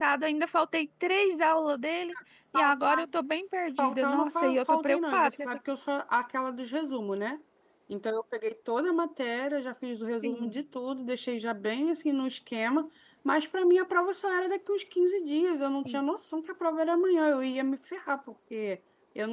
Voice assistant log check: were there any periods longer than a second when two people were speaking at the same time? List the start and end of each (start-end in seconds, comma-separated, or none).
3.8-5.5